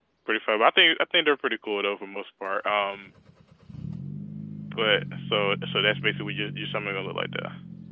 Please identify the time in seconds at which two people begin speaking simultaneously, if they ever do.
none

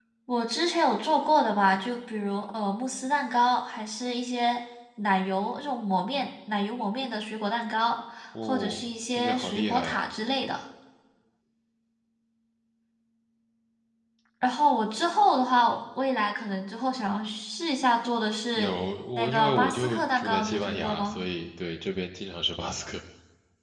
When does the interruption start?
8.4 s

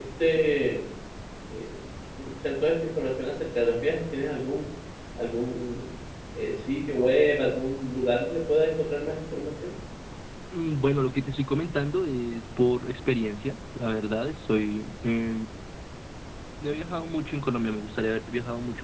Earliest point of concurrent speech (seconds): none

